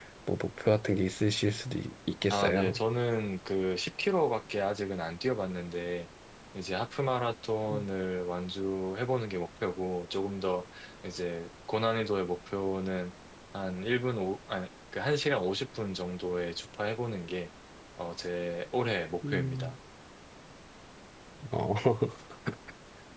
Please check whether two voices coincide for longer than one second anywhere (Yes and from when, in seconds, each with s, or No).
No